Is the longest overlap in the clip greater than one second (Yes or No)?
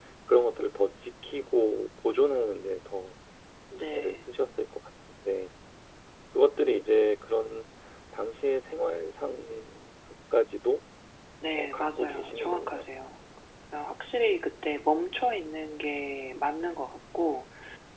Yes